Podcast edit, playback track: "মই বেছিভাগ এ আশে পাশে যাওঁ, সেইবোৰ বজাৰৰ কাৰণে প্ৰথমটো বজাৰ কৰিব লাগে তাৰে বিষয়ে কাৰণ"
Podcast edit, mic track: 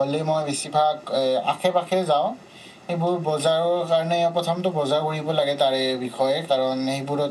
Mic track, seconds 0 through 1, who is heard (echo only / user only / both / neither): echo only